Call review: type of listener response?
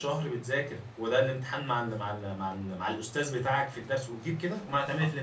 taking over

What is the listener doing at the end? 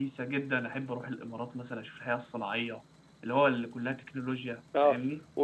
taking over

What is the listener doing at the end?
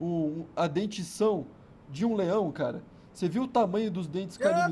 taking over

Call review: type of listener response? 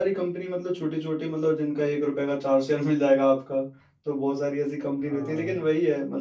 listening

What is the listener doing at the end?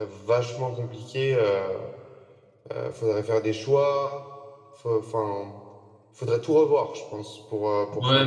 taking over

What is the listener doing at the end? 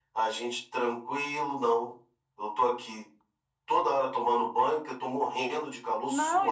taking over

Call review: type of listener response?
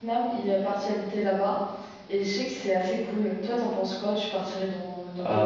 taking over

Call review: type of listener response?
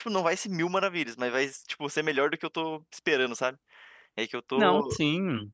taking over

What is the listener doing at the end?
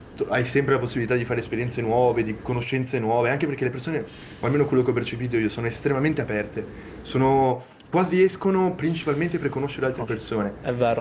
taking over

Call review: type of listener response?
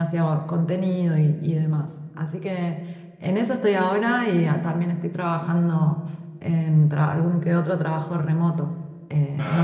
listening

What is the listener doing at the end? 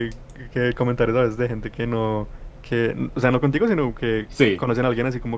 listening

